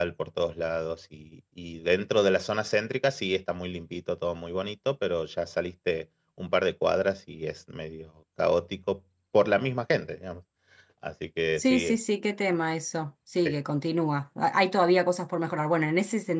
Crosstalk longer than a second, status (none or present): none